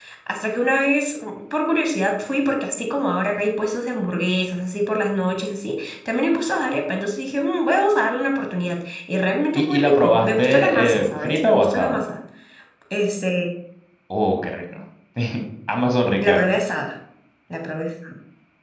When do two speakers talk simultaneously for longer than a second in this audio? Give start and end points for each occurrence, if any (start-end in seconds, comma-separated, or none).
9.6-12.0